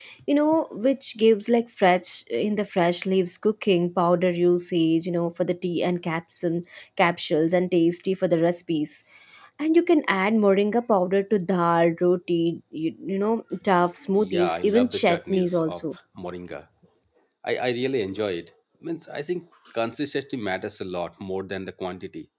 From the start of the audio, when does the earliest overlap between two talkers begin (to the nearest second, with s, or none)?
14 s